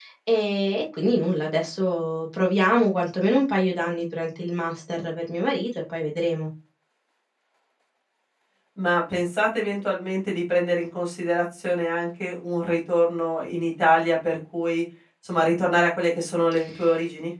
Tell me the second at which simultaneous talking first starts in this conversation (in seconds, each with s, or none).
none